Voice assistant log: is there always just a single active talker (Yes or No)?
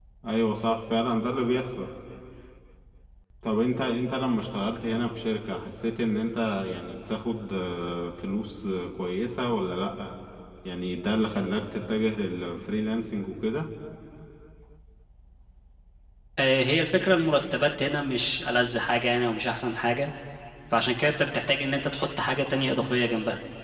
Yes